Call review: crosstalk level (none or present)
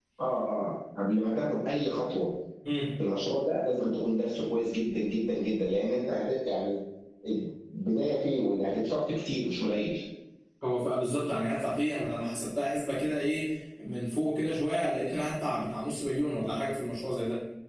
none